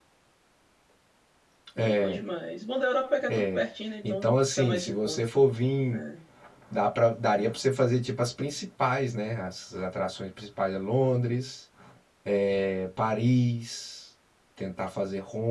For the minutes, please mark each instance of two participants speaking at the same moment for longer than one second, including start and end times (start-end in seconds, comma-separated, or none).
4.0-5.2